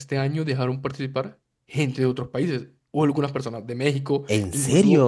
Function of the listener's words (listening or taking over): listening